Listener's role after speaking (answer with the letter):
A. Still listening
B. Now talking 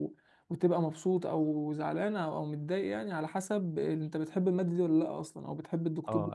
B